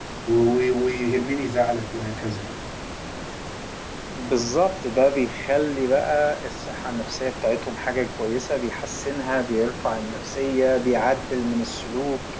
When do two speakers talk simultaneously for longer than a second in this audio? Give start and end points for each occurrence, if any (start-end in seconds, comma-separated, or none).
none